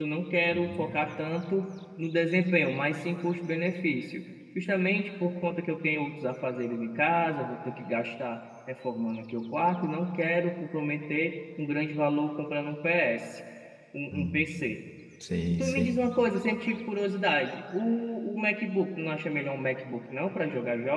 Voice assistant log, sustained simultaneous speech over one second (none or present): none